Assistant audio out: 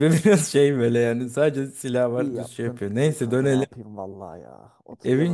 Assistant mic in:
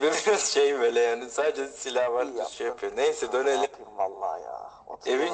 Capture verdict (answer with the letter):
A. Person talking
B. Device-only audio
B